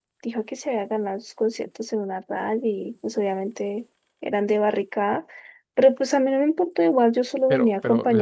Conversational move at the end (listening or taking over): taking over